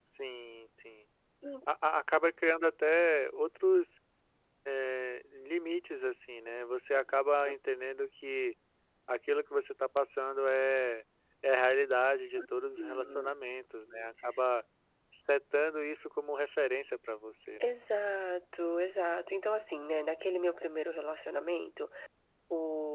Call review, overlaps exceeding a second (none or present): none